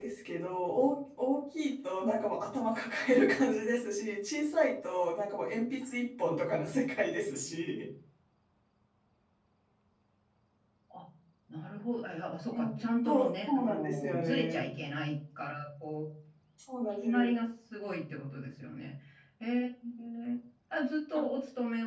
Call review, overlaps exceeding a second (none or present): present